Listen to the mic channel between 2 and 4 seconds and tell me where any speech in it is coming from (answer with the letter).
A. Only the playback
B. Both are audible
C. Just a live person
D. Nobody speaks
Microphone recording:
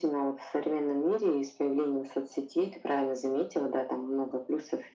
A